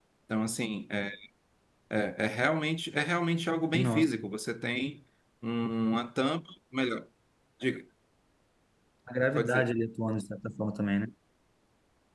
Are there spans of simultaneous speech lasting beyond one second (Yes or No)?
No